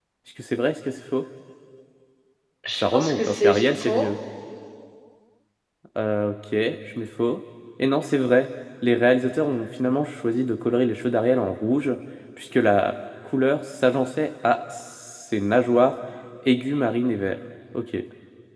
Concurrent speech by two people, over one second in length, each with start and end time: 2.7-4.1

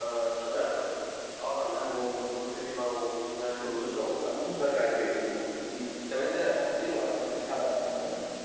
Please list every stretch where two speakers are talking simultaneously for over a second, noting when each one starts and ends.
none

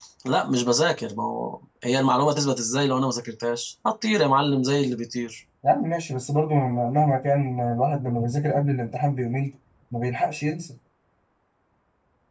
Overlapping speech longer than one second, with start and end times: none

